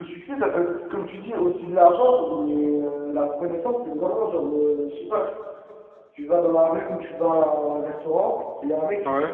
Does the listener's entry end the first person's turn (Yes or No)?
No